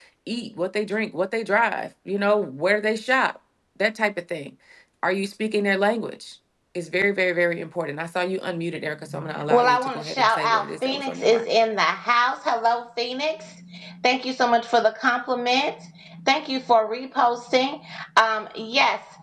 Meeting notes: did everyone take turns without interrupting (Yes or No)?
No